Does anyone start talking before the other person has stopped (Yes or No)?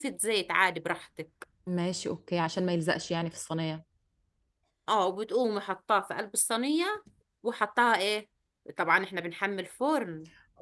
No